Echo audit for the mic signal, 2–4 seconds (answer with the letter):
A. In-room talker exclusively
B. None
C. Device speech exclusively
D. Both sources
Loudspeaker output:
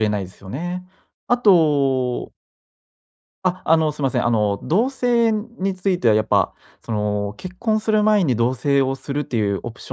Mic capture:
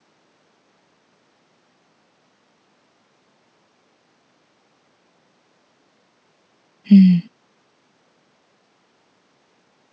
B